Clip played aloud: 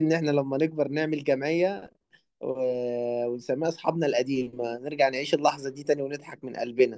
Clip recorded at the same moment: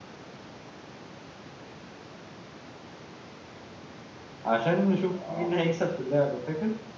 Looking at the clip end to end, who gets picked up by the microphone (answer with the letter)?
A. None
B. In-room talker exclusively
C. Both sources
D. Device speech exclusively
B